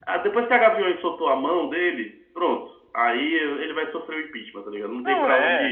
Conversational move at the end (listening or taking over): taking over